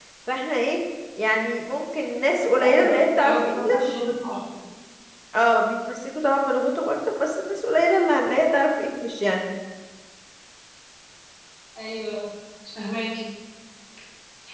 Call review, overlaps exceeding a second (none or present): present